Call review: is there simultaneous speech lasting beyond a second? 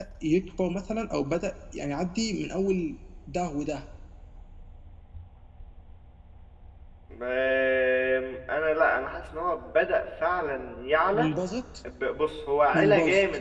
No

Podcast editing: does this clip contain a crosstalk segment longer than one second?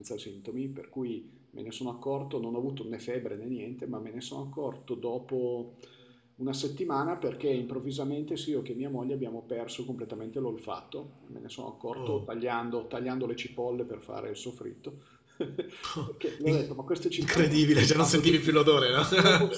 Yes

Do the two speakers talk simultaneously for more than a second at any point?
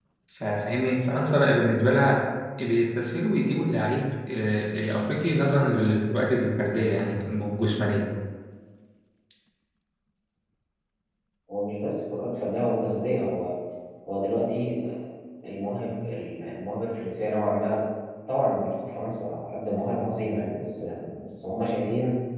No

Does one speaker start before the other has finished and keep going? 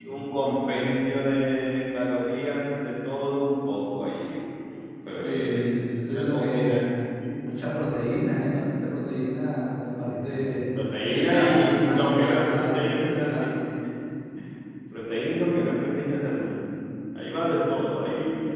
Yes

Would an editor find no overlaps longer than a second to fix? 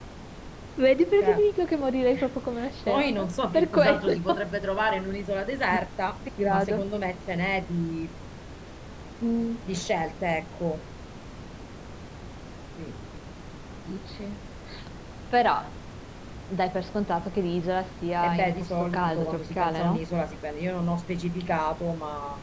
No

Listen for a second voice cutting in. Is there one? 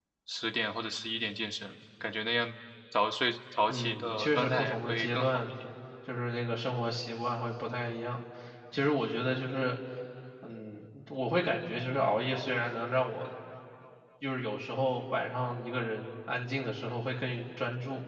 Yes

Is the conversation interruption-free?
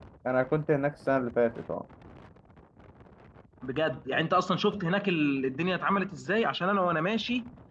Yes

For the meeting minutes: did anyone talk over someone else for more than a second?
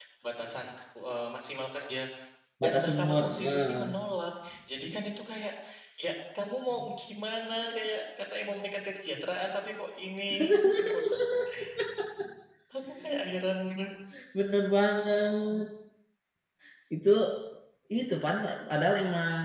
Yes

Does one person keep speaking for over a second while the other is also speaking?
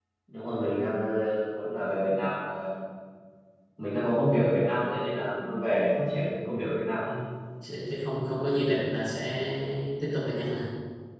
No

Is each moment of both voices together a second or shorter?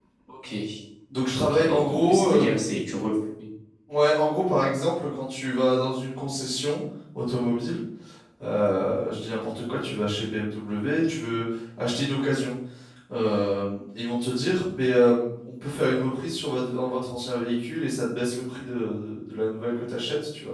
No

